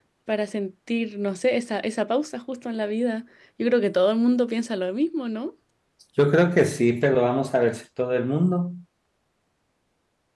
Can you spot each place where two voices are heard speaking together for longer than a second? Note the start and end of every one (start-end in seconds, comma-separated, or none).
none